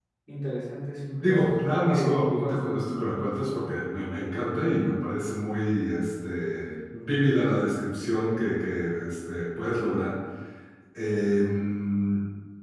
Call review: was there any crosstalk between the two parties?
Yes, from 1.0 s

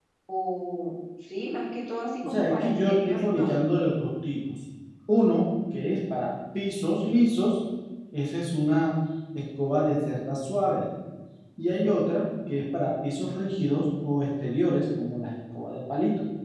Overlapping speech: Yes, from 2.2 s

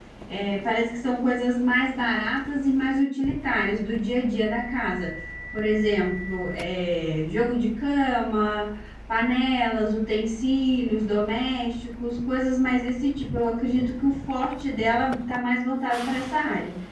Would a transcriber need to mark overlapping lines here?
No

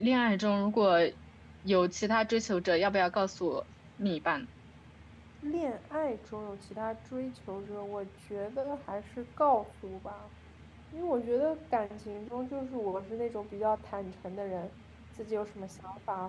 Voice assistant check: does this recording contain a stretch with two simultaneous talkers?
No

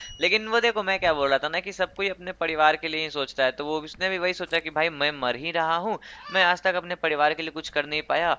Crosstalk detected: No

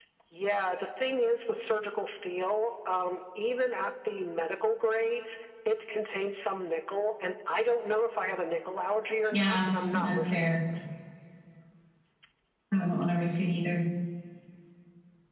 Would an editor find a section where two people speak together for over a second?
Yes, from 9.3 s

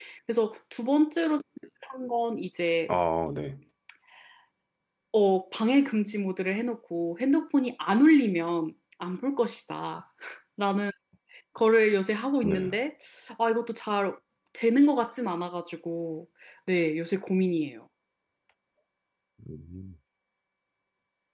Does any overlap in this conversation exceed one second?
No

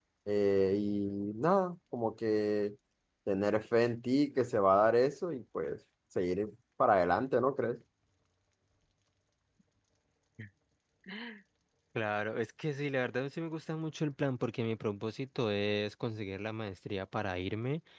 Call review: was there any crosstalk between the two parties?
No

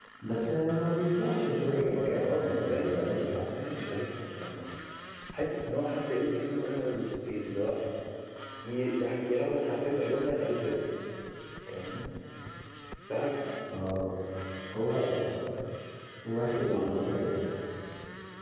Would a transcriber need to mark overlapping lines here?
Yes, from 1.7 s

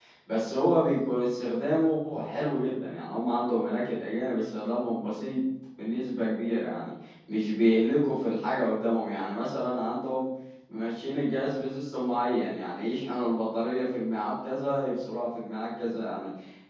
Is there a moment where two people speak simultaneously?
No

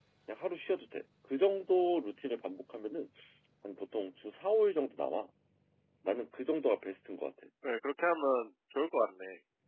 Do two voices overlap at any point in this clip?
No

